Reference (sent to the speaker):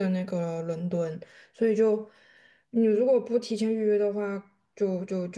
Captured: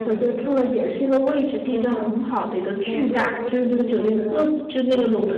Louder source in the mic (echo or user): user